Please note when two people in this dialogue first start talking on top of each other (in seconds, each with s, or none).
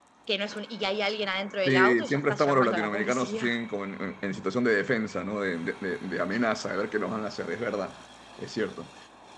1.6 s